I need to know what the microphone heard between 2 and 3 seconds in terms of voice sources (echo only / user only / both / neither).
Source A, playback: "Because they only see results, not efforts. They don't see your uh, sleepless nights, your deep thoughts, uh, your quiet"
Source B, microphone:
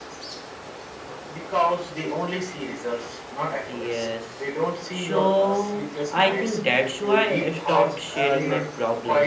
echo only